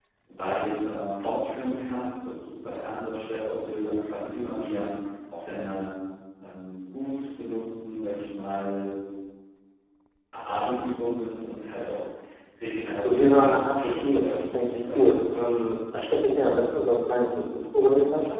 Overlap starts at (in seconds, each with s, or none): 13.0 s